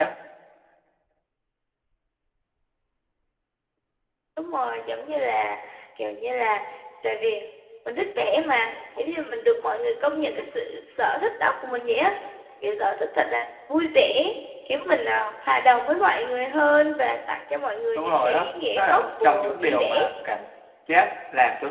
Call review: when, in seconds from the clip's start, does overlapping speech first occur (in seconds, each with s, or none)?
17.9 s